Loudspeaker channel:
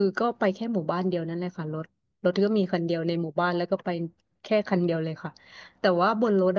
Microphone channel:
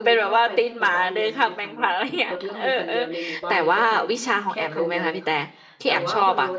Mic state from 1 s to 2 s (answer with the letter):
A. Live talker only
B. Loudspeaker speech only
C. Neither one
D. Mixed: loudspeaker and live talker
D